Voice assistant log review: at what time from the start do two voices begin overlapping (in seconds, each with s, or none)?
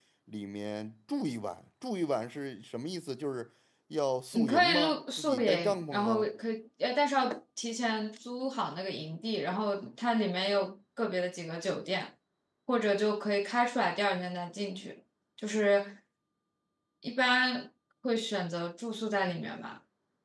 4.3 s